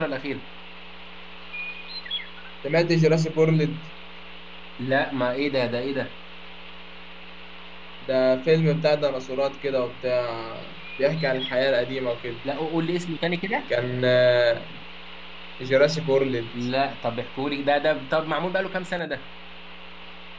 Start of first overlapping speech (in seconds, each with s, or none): none